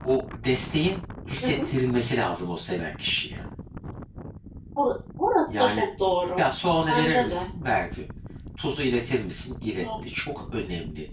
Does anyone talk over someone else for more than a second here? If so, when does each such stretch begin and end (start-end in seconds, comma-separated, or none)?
none